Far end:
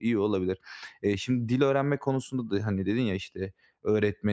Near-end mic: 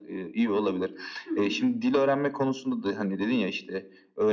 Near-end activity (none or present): present